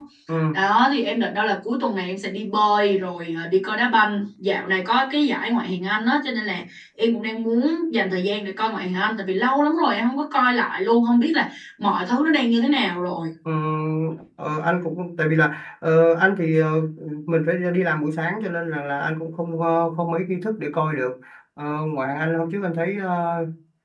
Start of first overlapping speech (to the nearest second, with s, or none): none